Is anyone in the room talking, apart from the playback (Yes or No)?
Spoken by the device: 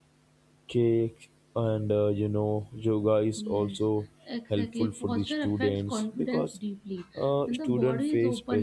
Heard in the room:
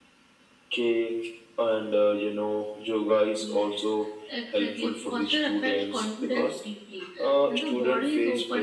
No